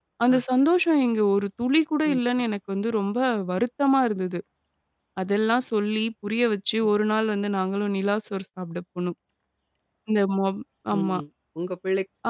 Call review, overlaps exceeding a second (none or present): none